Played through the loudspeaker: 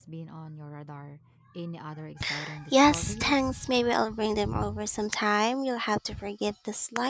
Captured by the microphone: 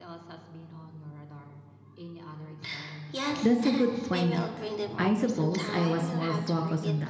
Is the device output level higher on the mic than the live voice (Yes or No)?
No